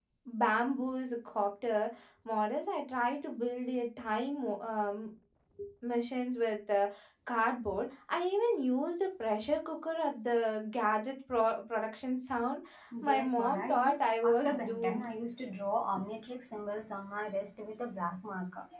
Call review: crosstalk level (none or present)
present